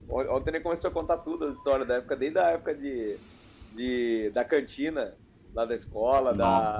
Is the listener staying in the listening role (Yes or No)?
Yes